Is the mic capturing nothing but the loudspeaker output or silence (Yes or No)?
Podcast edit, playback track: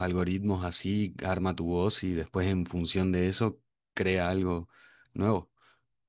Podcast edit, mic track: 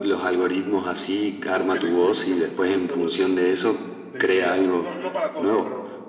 No